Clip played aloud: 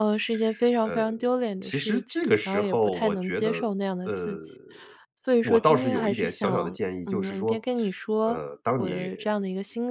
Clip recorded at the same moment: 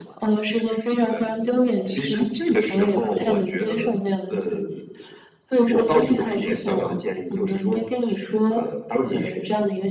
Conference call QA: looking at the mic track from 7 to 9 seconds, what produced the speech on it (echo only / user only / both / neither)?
echo only